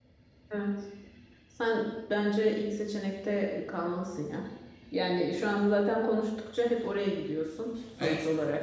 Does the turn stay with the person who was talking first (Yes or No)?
No